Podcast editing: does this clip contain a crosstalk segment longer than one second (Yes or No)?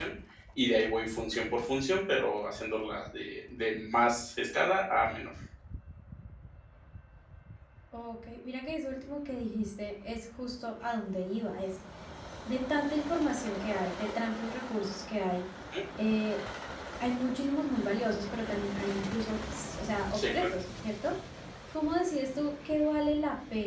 No